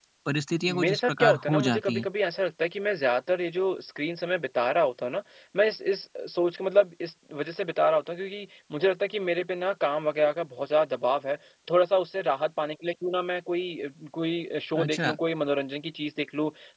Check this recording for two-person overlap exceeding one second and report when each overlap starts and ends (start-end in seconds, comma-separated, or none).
0.8-2.1